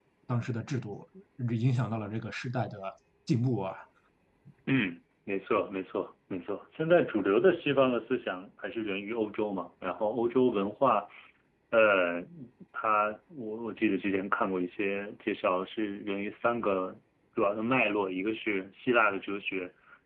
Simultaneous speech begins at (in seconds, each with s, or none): none